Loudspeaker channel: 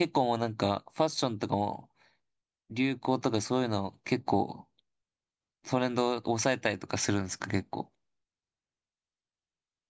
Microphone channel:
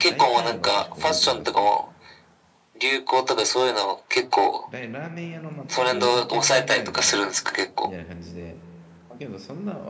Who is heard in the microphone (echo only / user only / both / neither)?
both